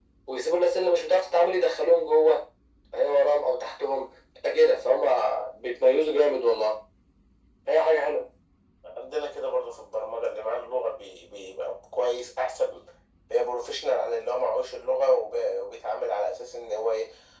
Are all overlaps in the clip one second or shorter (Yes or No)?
Yes